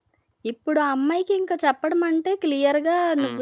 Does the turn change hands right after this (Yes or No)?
No